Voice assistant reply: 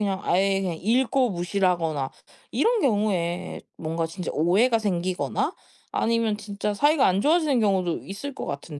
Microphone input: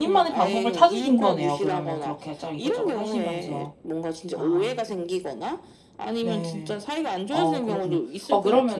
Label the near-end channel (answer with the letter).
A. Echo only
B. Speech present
B